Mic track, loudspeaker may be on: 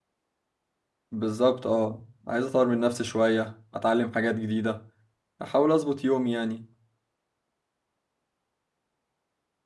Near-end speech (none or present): present